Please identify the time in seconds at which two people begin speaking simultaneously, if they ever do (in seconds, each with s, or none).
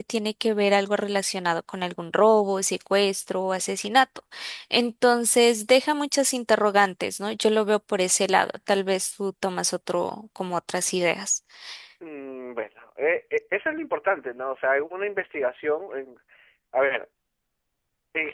none